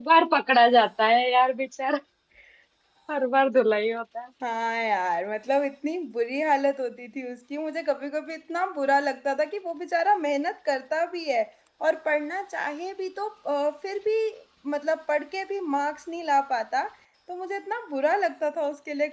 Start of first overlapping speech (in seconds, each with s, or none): none